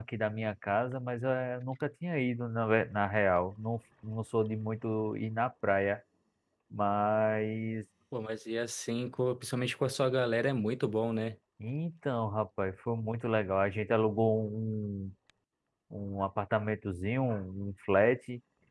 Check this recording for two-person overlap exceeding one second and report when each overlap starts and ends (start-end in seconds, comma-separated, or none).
none